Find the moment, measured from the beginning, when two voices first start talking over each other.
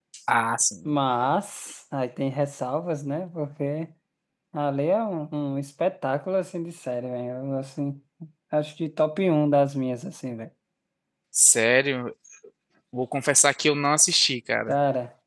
none

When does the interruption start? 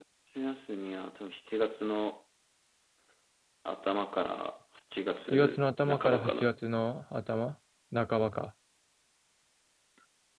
5 s

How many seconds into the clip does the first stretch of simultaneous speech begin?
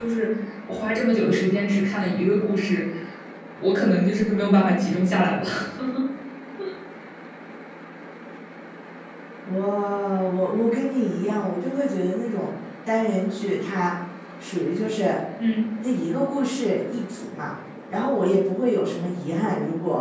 none

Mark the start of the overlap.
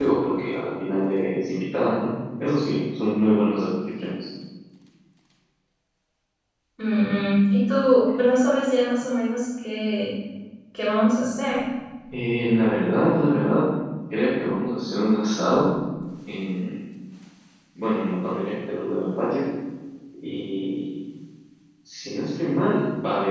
none

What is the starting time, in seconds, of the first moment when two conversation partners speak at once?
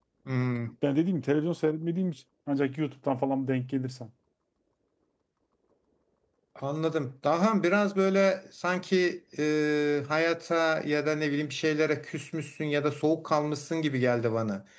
none

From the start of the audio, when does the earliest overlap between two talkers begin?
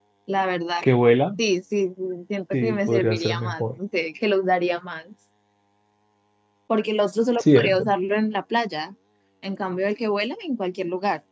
3 s

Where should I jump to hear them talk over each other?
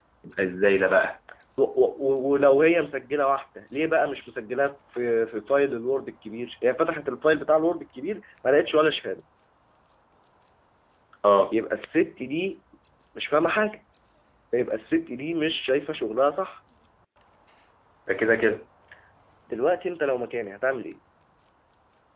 none

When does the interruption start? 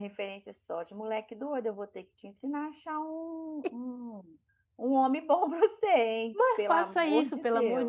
6 s

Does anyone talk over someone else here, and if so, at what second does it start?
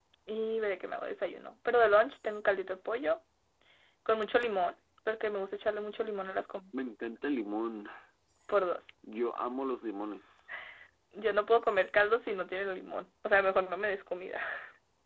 none

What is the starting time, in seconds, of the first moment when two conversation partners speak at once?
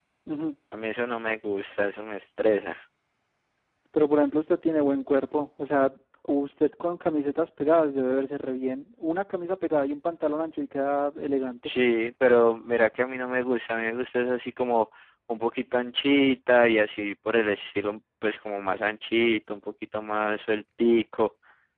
none

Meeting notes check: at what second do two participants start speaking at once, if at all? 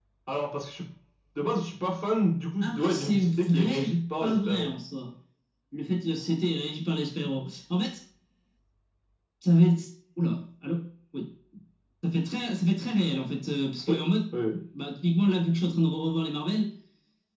3 s

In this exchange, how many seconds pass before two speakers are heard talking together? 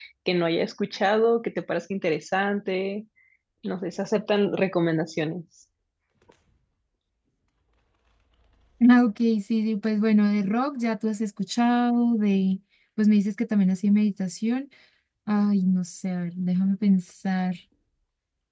none

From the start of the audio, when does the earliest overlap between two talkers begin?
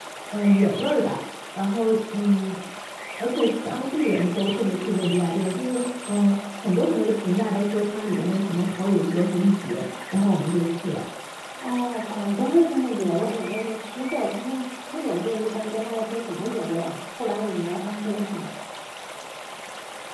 none

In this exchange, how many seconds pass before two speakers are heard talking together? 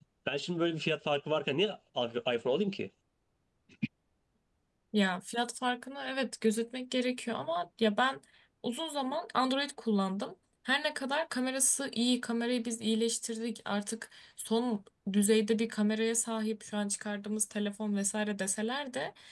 none

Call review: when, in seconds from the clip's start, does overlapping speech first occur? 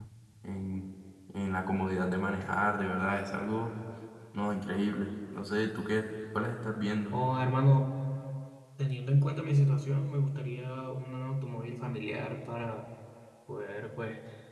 none

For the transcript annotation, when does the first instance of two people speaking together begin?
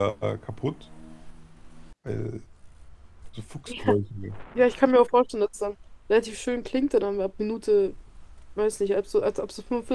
none

